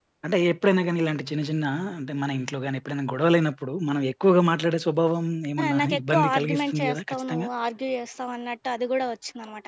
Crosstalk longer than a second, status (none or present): present